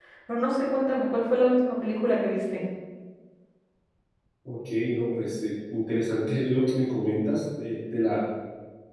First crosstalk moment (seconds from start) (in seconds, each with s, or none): none